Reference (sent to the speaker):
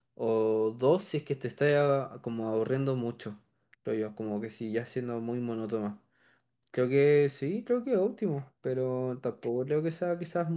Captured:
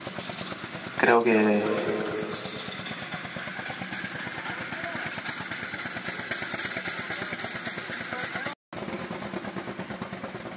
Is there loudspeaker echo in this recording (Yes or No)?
No